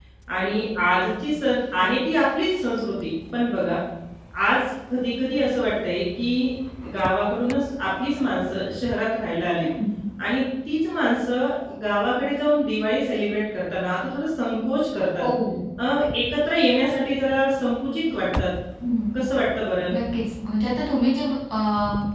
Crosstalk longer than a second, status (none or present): none